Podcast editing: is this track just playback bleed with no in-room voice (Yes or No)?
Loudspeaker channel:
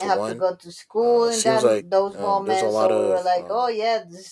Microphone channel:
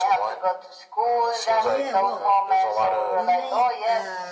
No